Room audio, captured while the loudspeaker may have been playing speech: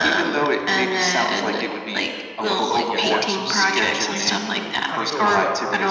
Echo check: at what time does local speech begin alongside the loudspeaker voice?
2.4 s

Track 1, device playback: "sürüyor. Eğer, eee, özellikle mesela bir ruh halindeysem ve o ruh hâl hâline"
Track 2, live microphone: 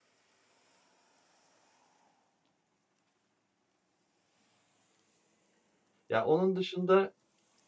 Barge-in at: 6.1 s

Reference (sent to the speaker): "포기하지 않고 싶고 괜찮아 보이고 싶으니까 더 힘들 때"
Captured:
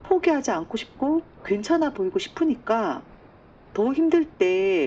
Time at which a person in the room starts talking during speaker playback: none

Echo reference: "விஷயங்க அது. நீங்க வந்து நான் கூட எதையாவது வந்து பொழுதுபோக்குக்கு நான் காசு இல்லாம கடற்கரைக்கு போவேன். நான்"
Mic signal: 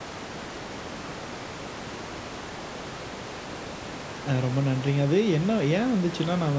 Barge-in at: 4.3 s

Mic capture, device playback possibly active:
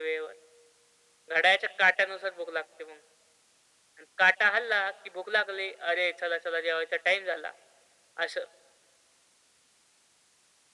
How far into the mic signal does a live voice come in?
none

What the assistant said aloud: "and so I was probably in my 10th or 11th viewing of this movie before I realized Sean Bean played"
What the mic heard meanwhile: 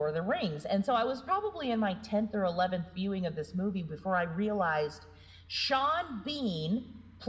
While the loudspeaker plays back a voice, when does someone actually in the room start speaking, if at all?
none

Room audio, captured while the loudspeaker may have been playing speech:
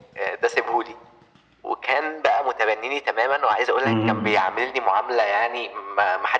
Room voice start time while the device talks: 3.8 s

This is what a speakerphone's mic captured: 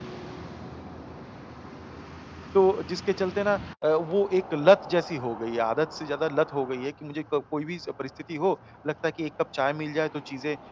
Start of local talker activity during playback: 2.5 s

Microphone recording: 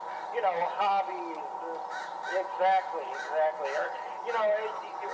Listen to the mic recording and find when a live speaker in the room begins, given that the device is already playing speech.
none

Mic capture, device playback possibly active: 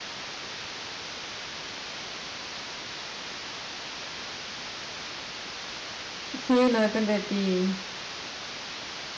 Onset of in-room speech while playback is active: 6.3 s

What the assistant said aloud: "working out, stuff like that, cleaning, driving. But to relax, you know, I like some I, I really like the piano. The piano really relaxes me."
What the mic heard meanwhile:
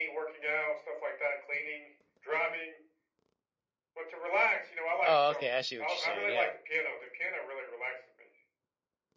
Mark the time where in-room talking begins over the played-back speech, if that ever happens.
5.0 s

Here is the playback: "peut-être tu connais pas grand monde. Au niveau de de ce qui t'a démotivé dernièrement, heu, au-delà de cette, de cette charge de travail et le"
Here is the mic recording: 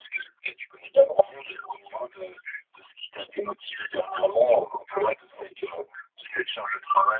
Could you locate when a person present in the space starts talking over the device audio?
none

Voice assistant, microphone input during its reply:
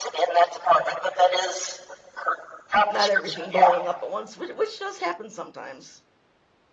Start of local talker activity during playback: 2.9 s

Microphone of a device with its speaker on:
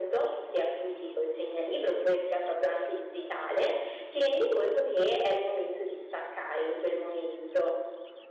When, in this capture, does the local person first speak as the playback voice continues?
none

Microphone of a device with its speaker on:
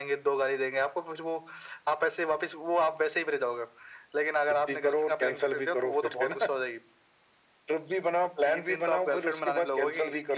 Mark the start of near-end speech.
none

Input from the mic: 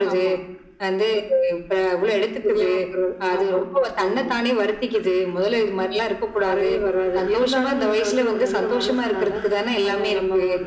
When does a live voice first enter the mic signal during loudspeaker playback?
none

